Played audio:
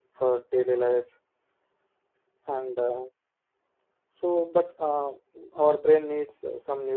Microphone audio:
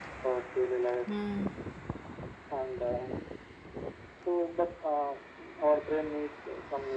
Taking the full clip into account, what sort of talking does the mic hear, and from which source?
both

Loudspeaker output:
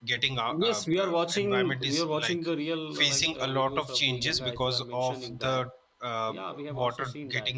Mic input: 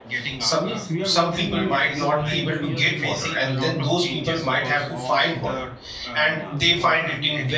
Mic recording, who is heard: both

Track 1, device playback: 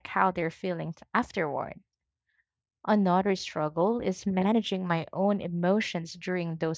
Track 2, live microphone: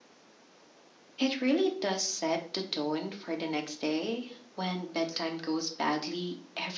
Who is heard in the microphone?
user only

